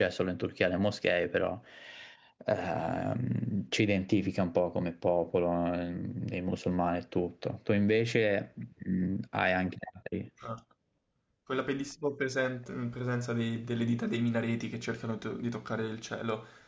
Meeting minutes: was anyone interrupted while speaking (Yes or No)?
No